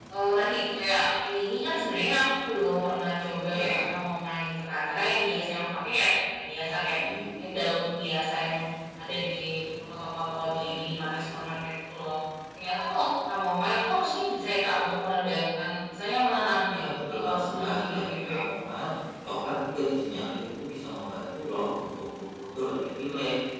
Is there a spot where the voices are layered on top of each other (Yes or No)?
Yes